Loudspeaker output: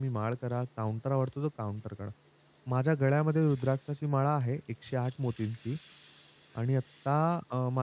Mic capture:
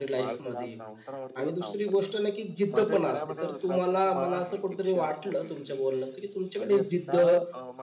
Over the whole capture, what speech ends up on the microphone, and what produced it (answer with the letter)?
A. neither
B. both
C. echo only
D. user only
B